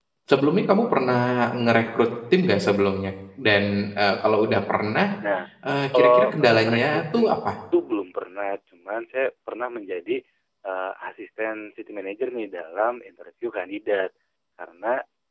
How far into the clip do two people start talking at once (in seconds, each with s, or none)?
5.9 s